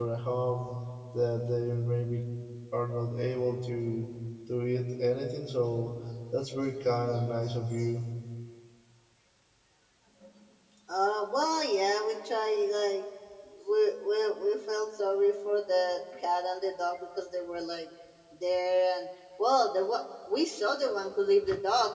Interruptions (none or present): none